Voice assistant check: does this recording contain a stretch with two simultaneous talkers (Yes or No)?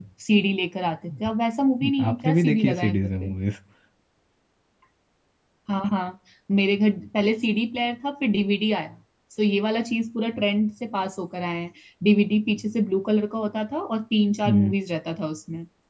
Yes